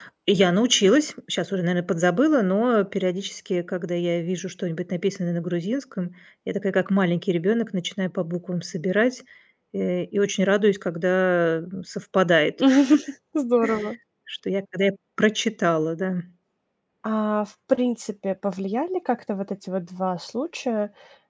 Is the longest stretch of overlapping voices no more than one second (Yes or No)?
Yes